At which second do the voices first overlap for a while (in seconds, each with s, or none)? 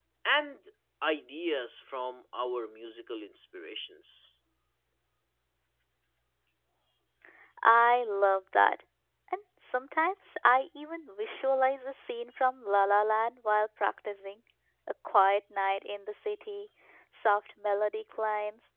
none